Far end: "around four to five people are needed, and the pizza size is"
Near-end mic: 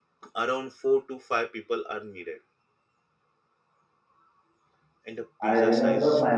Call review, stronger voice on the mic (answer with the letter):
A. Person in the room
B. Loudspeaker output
A